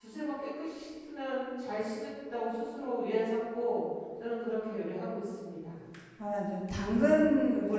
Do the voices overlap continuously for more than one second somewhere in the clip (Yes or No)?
No